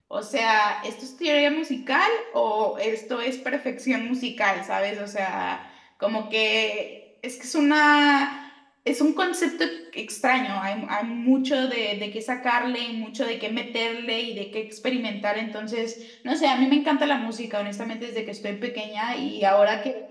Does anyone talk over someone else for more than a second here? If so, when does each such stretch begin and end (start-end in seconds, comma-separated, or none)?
none